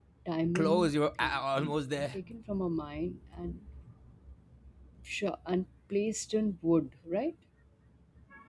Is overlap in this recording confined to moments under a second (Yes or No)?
No